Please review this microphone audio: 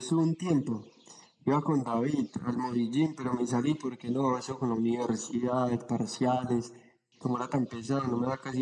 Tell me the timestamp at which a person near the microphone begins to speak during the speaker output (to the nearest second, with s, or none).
none